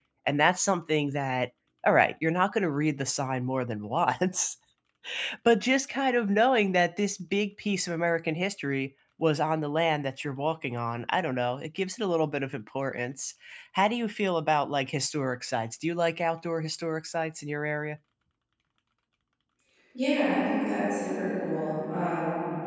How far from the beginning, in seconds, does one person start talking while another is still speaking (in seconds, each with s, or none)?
none